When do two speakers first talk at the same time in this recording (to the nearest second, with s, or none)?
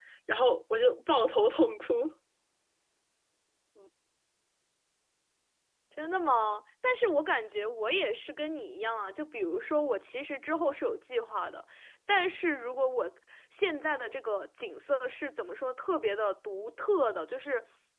none